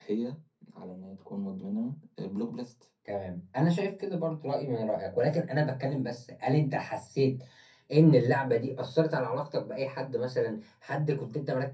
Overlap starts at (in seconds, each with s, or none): none